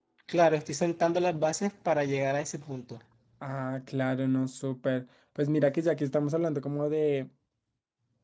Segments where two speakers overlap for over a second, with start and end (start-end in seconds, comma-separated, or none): none